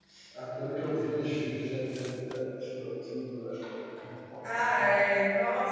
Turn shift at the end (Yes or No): Yes